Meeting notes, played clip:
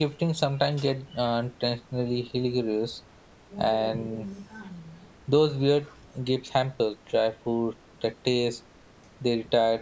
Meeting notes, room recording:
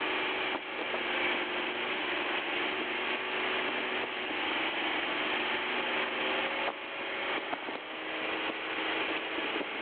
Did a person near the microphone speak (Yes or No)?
No